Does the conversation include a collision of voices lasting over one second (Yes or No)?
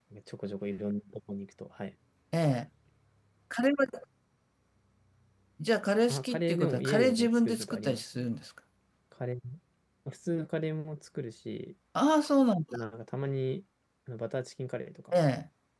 Yes